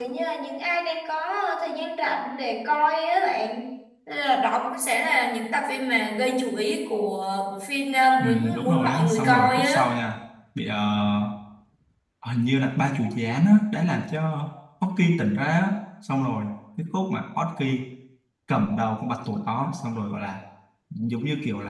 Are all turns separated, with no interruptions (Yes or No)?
No